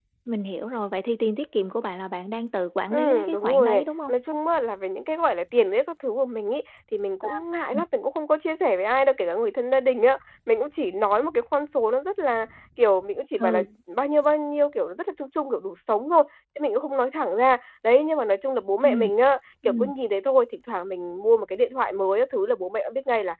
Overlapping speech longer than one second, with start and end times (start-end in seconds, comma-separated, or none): 2.9-4.1